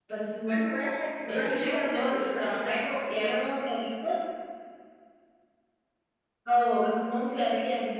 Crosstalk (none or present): present